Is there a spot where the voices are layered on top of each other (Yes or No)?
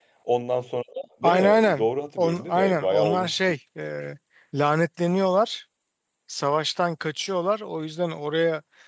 Yes